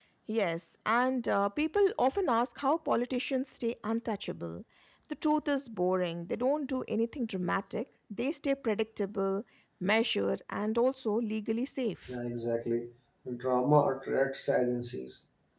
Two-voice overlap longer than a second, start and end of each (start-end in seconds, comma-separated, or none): none